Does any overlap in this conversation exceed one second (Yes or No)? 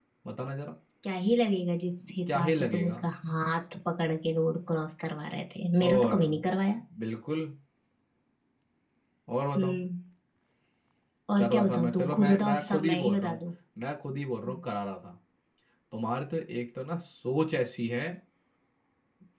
Yes